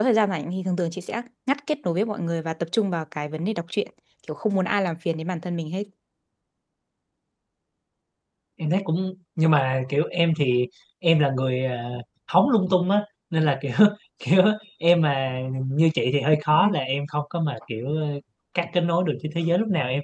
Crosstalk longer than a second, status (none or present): none